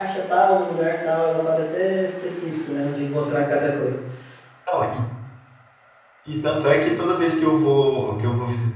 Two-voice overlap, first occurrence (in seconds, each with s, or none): none